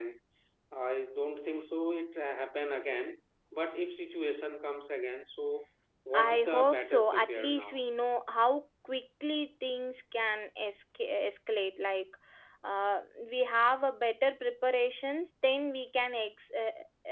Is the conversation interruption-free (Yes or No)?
No